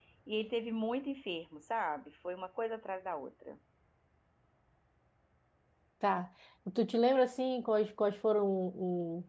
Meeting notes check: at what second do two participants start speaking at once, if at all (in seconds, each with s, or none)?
none